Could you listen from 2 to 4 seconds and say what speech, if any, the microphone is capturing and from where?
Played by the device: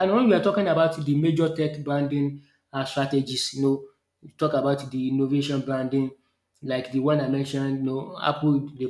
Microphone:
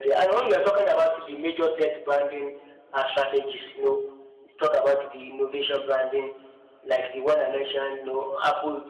echo only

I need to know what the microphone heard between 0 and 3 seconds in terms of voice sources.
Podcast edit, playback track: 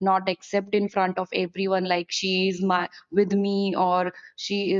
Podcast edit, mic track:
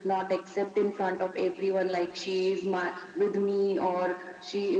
echo only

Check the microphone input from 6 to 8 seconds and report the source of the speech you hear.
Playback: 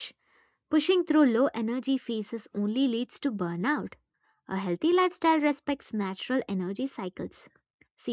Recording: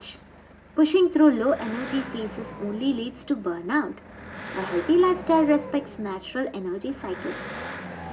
echo only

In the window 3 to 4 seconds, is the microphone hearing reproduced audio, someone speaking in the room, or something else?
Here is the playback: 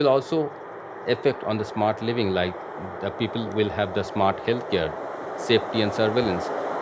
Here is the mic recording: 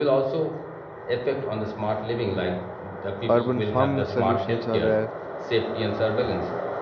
both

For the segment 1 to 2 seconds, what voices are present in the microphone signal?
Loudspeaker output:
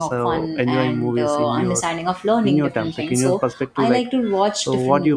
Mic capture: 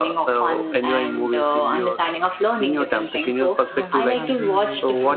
echo only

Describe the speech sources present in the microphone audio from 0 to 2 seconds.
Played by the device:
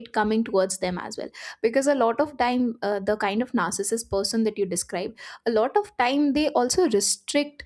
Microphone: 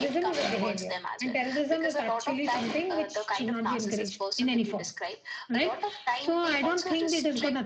both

